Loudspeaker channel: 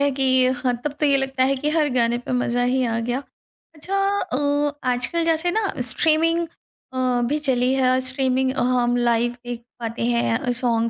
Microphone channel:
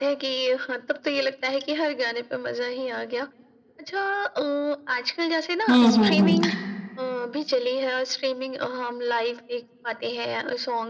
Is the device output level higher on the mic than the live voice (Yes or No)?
No